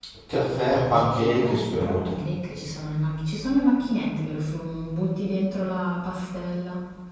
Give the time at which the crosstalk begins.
0.7 s

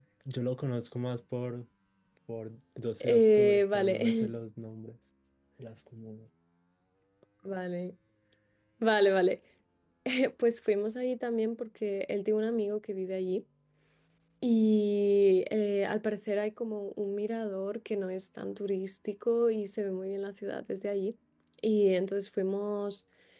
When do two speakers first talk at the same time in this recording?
3.0 s

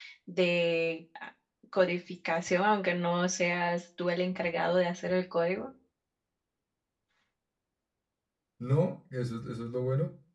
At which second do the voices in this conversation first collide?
none

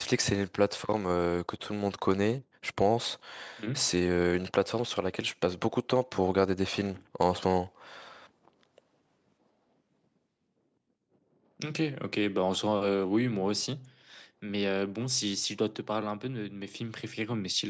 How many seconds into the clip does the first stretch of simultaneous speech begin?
none

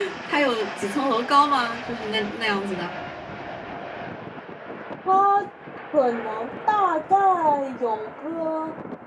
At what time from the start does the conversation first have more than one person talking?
none

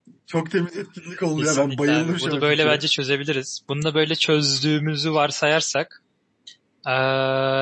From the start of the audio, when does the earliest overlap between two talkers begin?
1.4 s

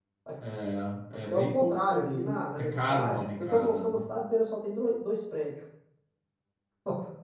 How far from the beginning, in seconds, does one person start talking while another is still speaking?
1.3 s

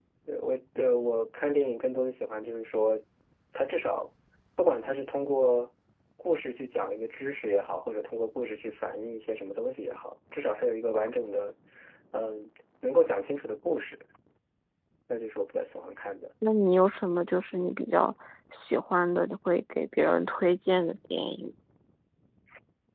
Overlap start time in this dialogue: none

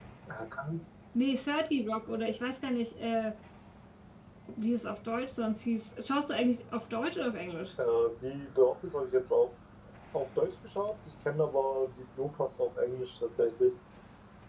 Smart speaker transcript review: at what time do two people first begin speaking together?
none

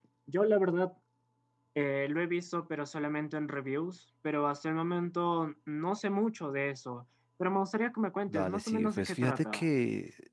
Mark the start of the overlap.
8.3 s

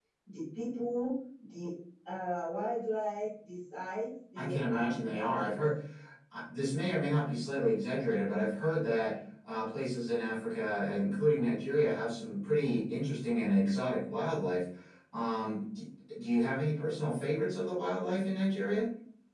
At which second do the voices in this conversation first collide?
4.4 s

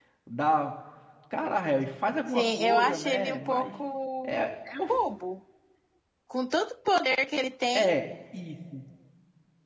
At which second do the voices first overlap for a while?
2.3 s

